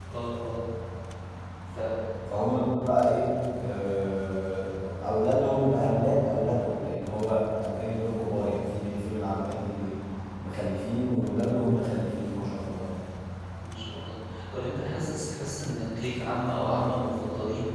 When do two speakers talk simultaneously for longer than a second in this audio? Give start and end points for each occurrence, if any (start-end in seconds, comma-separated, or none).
none